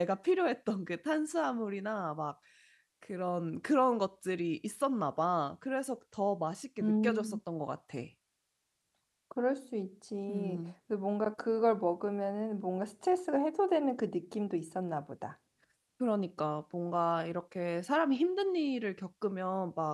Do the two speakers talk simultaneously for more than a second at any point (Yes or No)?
No